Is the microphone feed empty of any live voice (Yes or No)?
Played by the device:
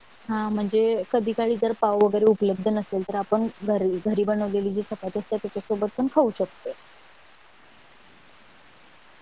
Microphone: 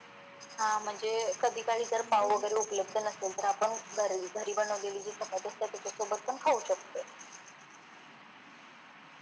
No